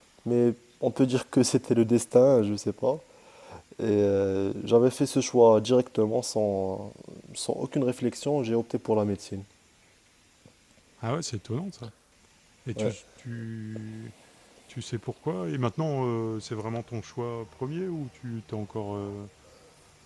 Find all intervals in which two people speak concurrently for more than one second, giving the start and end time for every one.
none

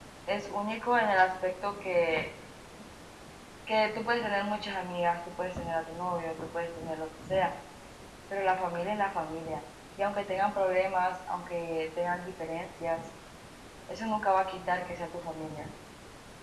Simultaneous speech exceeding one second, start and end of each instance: none

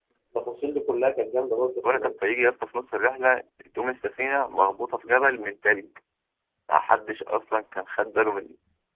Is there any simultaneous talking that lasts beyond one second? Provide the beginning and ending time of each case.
none

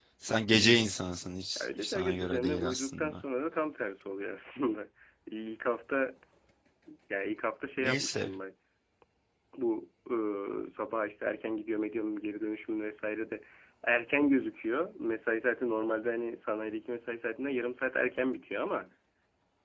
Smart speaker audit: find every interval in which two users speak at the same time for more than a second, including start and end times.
1.6-3.2

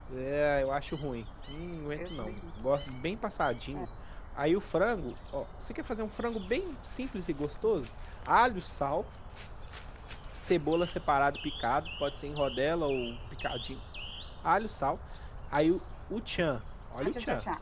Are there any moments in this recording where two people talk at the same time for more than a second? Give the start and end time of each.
none

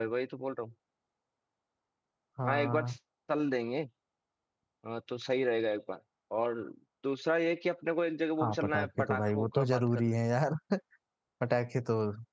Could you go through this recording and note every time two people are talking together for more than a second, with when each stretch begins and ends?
8.4-10.2

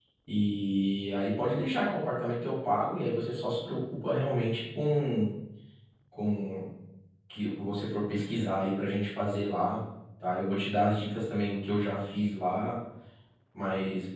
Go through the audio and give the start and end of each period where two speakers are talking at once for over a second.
none

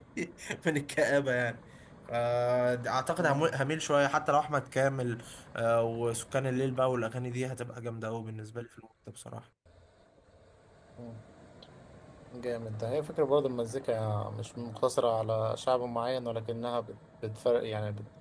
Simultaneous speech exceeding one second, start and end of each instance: none

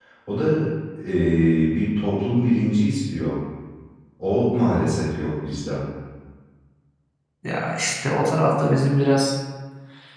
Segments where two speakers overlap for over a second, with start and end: none

